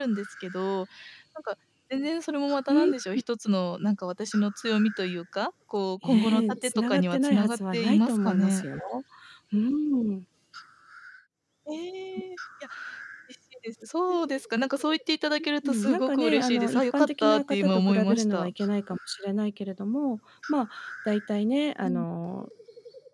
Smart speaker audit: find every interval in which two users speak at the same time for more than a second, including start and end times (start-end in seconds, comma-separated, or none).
6.0-8.6, 15.6-18.5